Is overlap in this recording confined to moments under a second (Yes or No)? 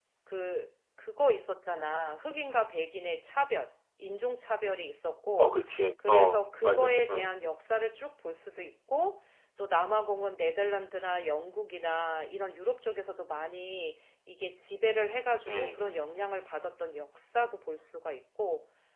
No